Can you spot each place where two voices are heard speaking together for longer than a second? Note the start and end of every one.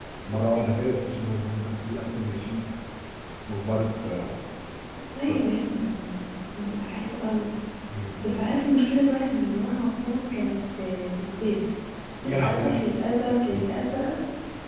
none

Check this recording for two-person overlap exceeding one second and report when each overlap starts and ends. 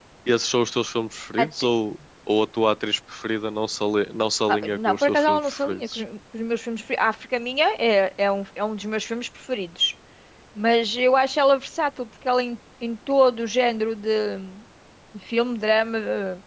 4.5-6.0

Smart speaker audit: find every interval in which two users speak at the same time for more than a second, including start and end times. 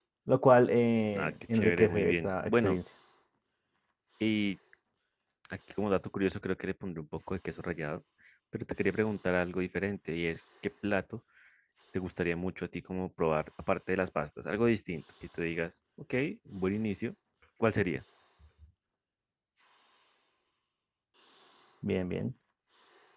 1.2-2.8

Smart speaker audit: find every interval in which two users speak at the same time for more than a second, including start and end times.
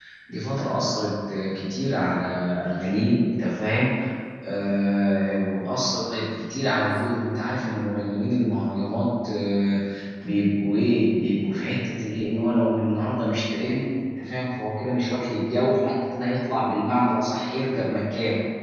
none

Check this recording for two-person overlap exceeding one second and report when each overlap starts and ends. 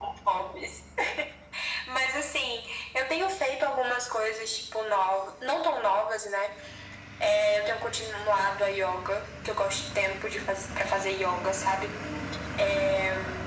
none

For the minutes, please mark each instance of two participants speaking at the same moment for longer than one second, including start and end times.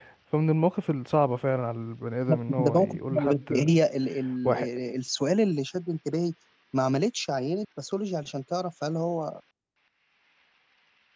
2.3-3.7

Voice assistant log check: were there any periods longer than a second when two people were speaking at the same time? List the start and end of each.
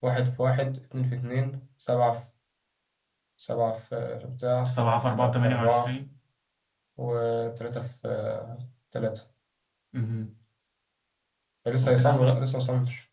4.6-5.9

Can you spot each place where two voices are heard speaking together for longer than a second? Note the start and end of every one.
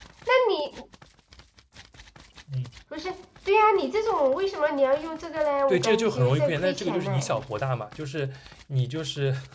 5.7-7.4

